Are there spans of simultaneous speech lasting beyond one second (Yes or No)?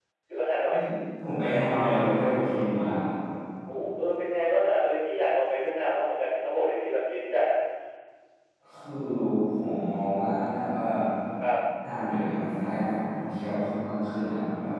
No